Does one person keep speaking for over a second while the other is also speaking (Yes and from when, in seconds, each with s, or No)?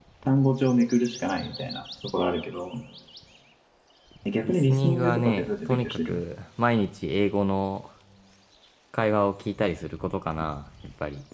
Yes, from 4.4 s